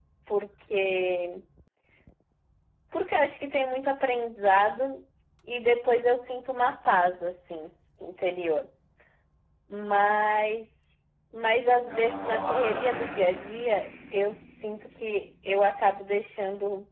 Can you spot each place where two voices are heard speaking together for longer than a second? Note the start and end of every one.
11.8-13.1

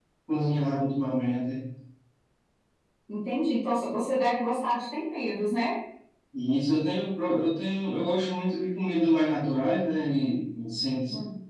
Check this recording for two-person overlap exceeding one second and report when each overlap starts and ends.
none

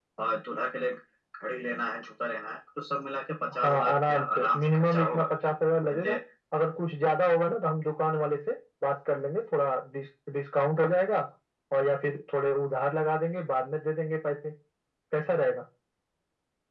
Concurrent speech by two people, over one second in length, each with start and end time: 3.6-5.3

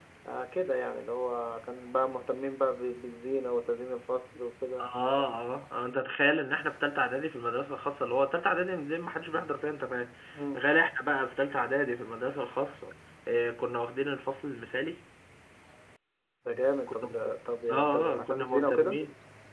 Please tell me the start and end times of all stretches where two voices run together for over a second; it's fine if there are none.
17.7-19.0

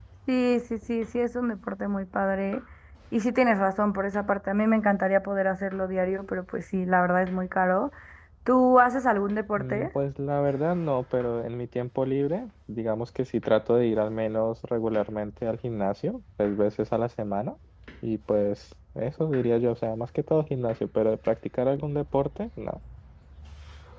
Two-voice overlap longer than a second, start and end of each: none

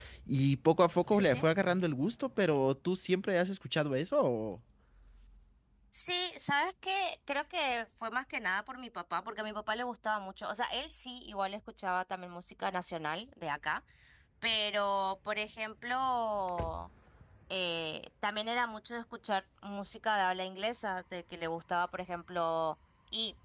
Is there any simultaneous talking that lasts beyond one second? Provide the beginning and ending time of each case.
none

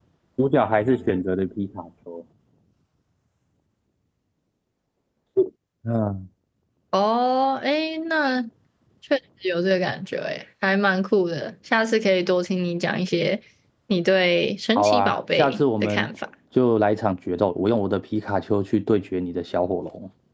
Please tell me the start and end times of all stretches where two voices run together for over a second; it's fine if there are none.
14.8-16.1

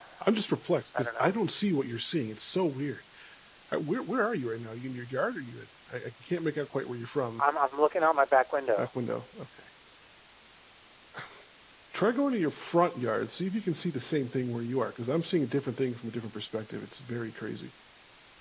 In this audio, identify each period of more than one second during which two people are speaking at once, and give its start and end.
none

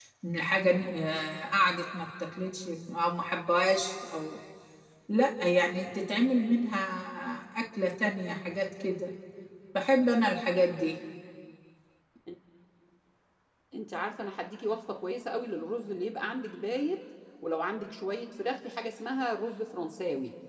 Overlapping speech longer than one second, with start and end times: none

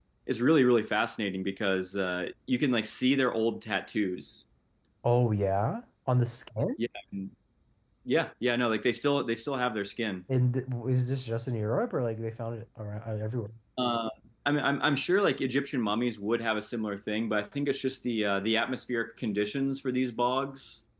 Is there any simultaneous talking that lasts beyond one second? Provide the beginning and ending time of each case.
none

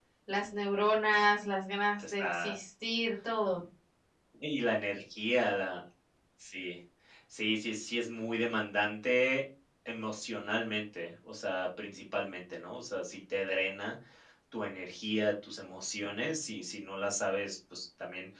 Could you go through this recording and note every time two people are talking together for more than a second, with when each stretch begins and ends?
none

